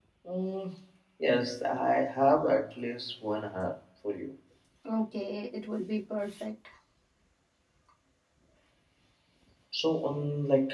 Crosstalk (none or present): none